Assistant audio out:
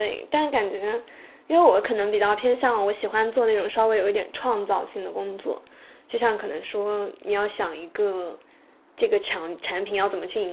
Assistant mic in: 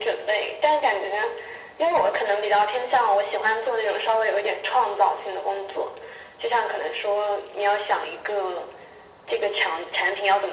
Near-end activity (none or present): none